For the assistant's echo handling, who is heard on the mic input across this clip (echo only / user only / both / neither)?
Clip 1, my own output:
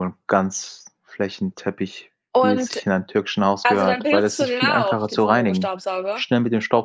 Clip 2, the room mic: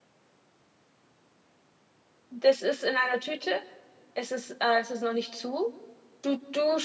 user only